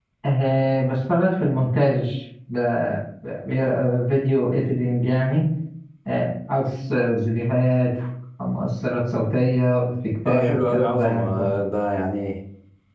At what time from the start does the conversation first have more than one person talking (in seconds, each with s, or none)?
10.2 s